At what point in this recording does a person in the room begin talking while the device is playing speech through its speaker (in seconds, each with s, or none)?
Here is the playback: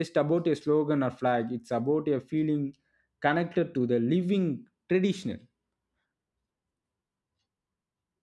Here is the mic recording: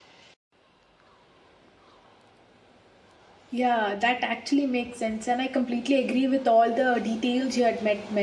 3.5 s